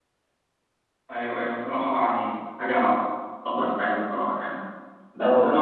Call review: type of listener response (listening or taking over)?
listening